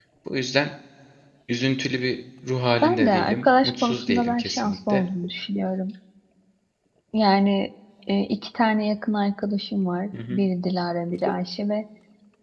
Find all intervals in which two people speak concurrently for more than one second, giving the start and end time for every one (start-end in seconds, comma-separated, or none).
2.8-5.0